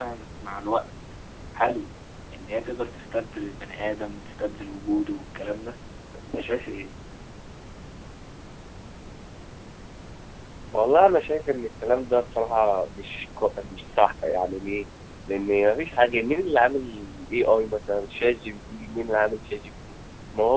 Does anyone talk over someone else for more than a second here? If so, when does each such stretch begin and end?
none

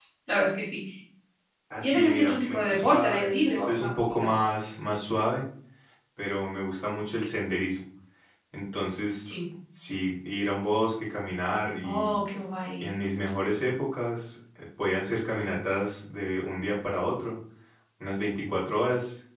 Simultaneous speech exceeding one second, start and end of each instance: 1.8-4.3

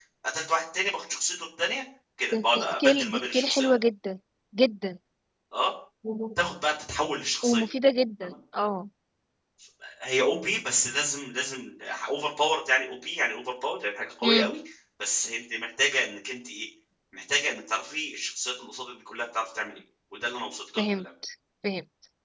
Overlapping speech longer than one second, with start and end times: 2.3-3.7

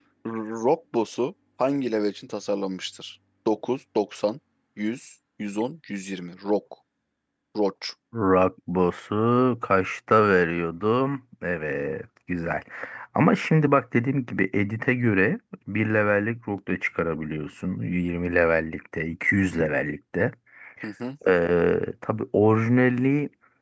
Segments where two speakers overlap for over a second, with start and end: none

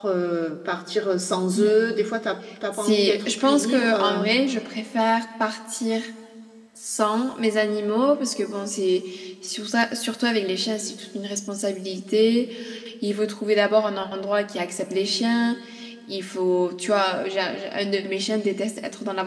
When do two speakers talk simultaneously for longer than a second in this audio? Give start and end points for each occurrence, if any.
2.7-4.2

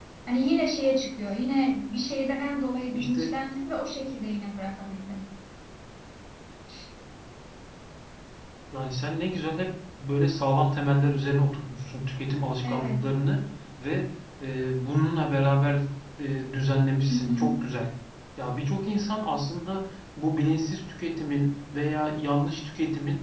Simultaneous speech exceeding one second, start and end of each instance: none

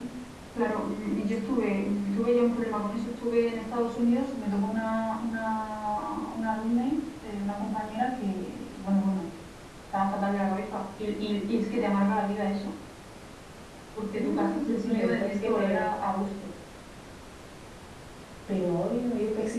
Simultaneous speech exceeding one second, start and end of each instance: 14.1-15.9

